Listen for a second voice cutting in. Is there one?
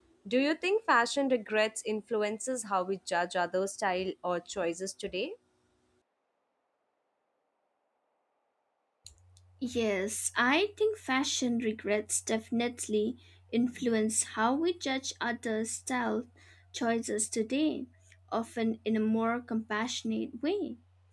No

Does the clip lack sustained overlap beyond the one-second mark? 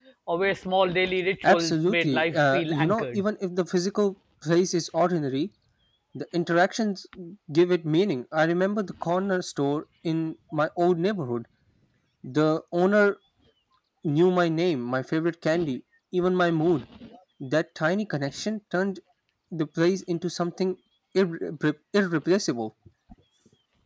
No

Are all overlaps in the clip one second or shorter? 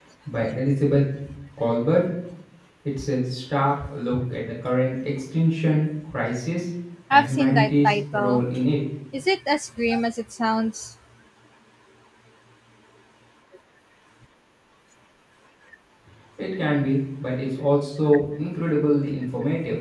No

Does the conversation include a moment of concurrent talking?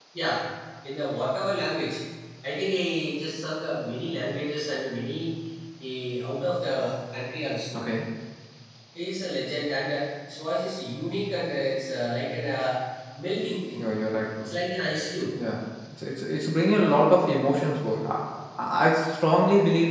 No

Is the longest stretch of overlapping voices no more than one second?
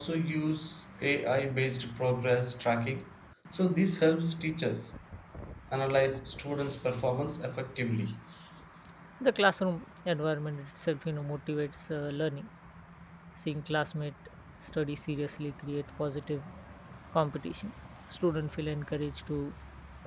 Yes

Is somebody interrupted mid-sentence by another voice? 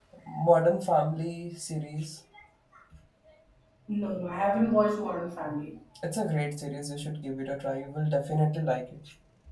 No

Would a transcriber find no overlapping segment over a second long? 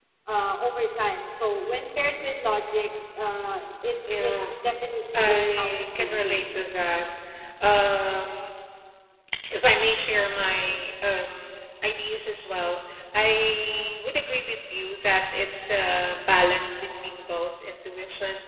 No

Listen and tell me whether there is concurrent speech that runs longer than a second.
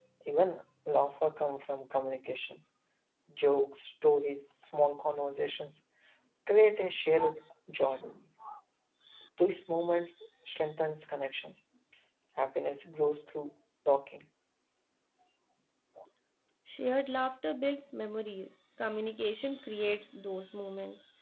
No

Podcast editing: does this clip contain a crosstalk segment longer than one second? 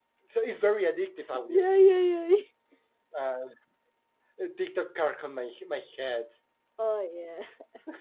No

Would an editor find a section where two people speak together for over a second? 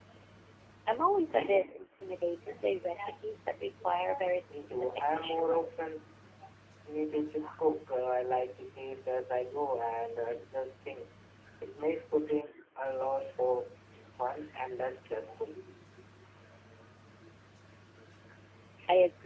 Yes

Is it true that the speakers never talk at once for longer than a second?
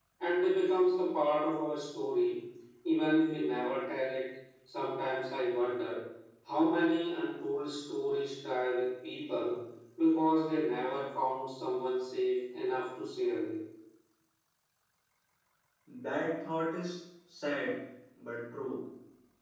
Yes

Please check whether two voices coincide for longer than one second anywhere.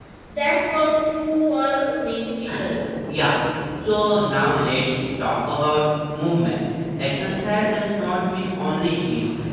No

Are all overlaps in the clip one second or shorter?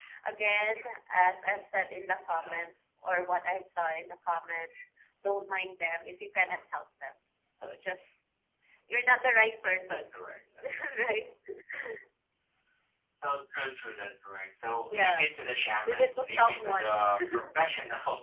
No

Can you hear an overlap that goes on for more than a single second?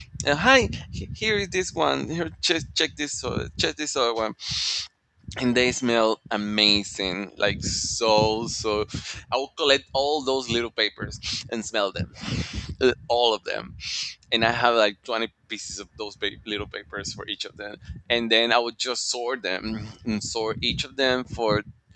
No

